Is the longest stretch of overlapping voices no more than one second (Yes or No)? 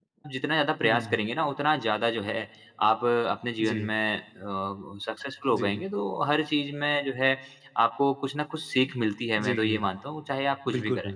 Yes